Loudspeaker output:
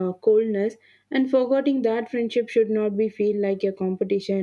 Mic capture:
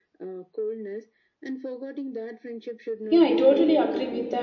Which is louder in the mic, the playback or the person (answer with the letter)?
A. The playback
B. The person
B